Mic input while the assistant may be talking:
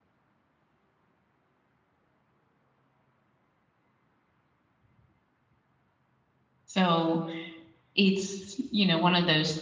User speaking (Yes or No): Yes